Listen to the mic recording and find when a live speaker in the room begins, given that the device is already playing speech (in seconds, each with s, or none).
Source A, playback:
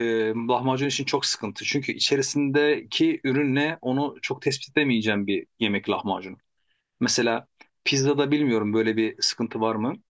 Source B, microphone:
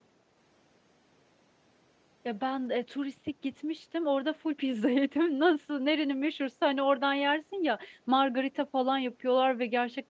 2.2 s